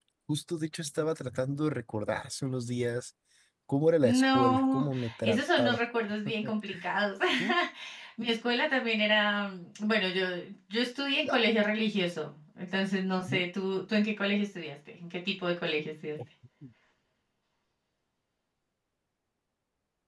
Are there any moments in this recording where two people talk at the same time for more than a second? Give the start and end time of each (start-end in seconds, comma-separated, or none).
4.0-5.8